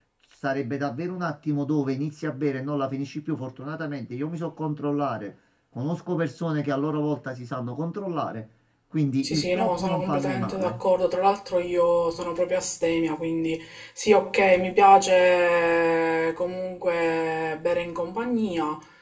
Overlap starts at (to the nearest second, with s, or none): 9 s